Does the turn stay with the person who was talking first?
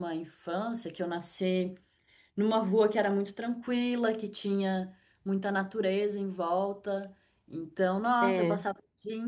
Yes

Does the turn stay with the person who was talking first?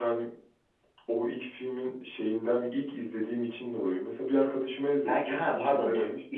No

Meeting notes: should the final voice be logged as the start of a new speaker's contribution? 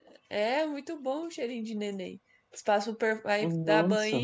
No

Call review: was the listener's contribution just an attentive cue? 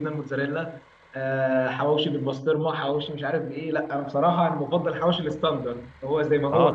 No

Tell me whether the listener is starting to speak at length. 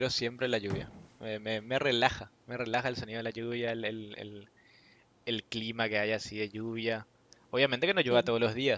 No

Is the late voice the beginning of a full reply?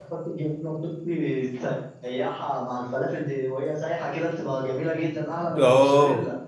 Yes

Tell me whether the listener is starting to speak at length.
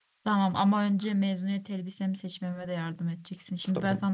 No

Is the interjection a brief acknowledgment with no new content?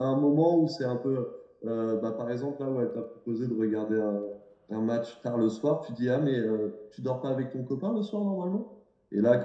Yes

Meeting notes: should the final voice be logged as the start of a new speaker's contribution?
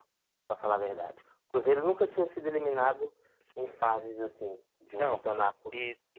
Yes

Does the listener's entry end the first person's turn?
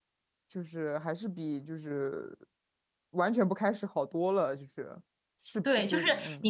Yes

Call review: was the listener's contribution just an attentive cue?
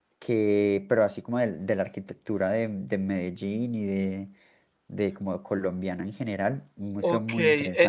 No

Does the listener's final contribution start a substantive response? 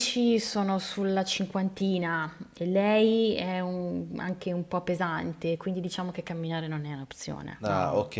Yes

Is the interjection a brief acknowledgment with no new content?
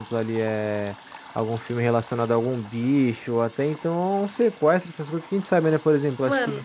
Yes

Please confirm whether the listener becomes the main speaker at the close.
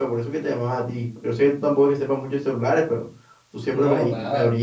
No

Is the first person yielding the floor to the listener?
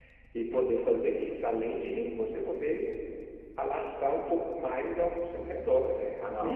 No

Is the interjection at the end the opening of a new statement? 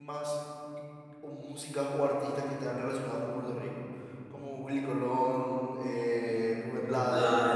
Yes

